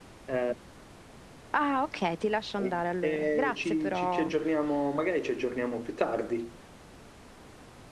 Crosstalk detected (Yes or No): Yes